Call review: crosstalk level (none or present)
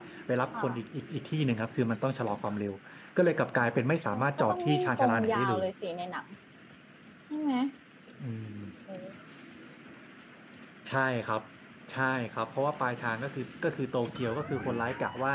present